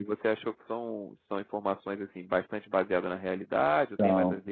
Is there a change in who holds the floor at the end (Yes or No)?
Yes